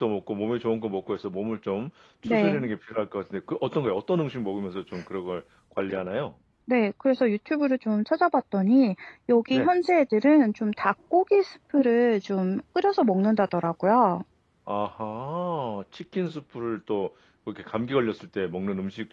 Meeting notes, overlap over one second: none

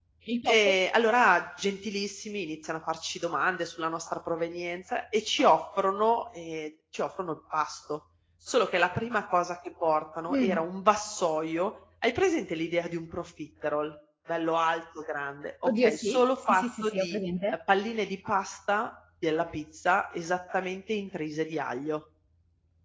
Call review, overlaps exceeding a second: present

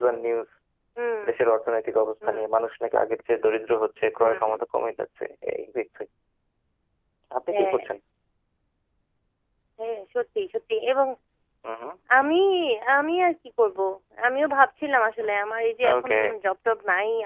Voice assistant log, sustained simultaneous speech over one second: none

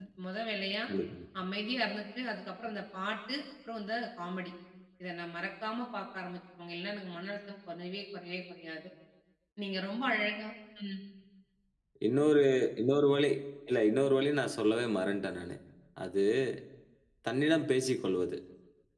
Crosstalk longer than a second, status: none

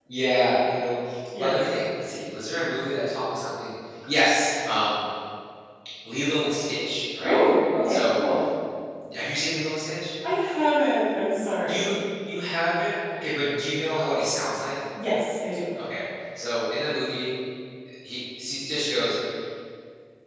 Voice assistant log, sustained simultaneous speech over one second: none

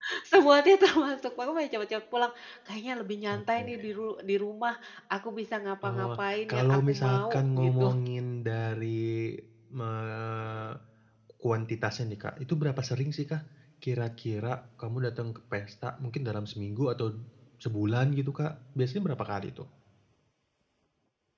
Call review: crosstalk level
present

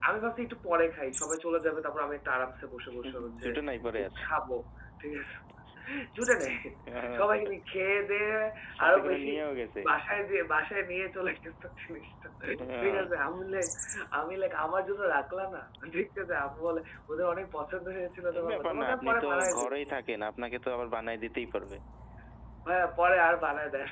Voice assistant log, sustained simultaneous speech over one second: present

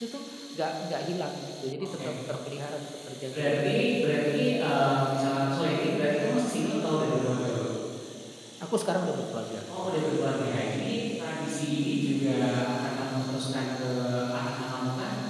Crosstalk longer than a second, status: none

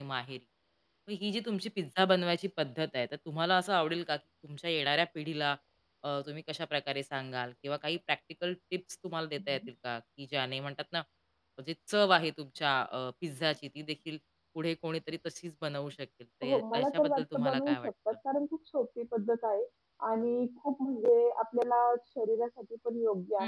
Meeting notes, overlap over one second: present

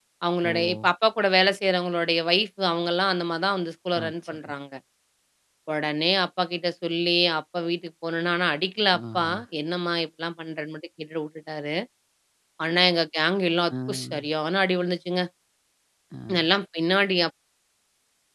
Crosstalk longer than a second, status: none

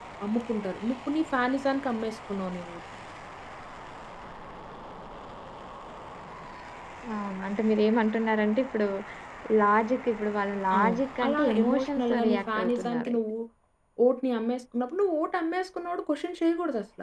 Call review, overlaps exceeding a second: present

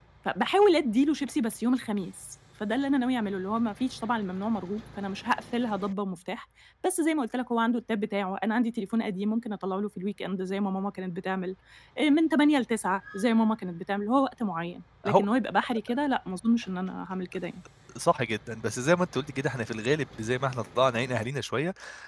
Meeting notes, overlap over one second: none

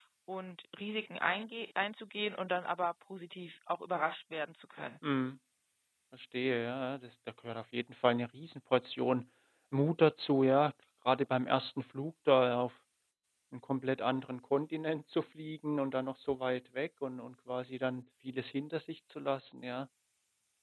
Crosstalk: none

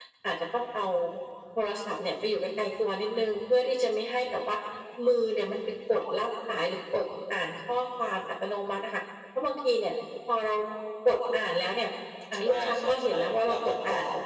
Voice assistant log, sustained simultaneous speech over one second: present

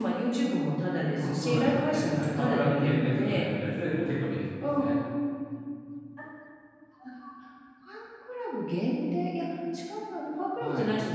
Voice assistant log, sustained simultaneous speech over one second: present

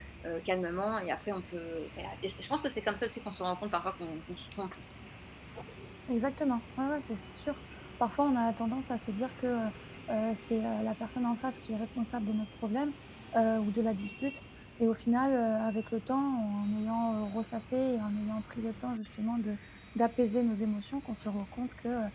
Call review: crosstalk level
none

